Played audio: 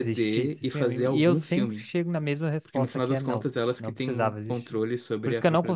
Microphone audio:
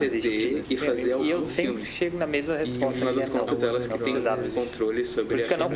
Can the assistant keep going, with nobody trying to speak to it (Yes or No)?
No